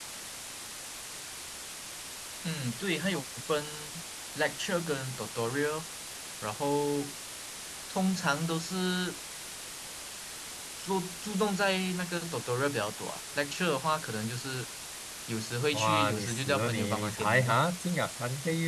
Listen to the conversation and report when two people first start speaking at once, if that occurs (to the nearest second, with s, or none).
16 s